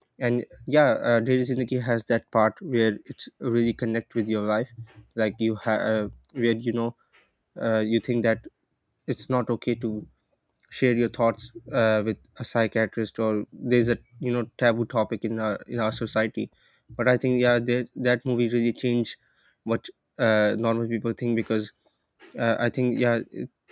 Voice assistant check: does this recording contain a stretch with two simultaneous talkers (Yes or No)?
No